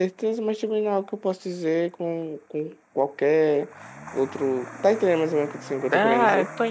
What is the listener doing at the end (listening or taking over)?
taking over